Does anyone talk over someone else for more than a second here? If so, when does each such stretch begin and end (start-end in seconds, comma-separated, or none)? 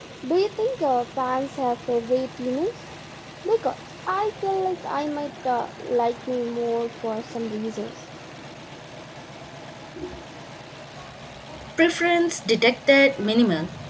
none